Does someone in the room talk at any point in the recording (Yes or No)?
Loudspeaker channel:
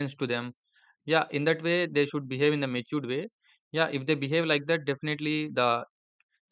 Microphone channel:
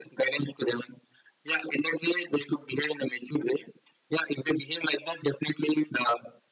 No